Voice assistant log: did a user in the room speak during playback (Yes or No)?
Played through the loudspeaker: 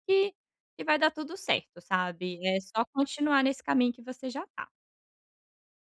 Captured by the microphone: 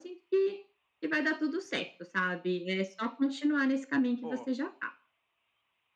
Yes